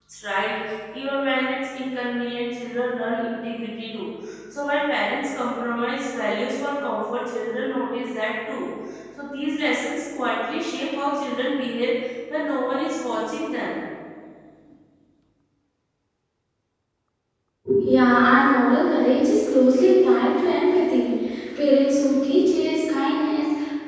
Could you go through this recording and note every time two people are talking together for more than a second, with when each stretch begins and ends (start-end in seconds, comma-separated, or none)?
none